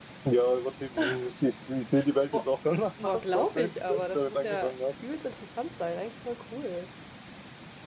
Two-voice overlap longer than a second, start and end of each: 3.0-4.7

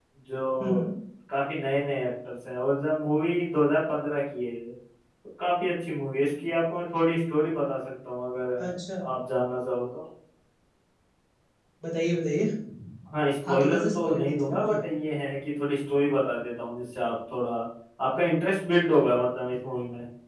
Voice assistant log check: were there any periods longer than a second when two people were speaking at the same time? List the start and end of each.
13.5-14.8

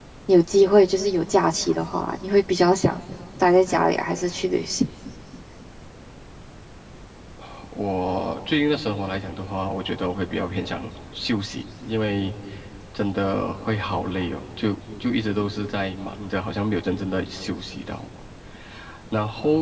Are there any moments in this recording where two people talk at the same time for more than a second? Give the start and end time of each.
none

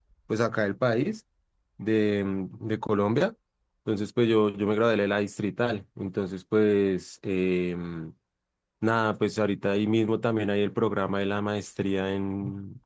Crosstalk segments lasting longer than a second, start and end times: none

